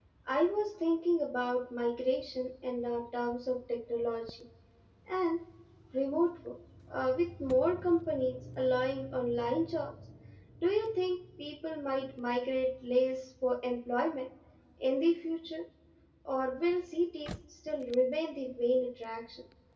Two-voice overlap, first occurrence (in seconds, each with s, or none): none